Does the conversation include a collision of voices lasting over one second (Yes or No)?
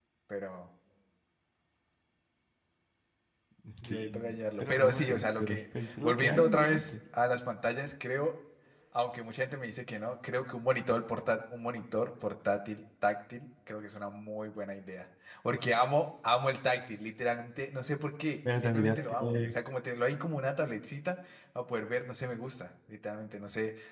Yes